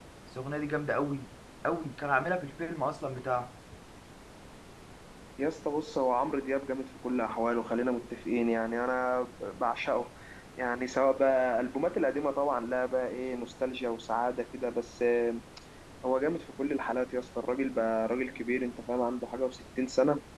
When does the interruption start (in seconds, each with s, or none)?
none